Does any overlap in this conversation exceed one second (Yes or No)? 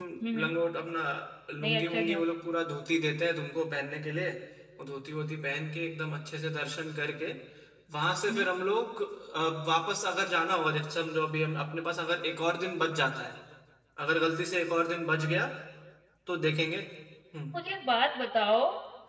No